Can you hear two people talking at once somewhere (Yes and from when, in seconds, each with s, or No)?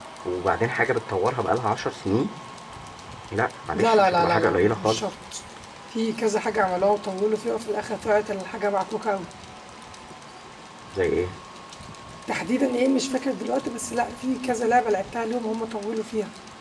Yes, from 3.7 s